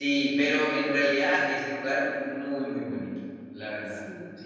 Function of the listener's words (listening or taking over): taking over